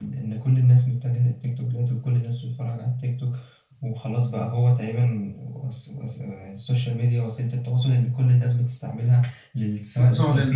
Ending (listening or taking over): taking over